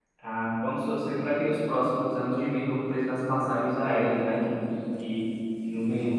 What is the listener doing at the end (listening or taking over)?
listening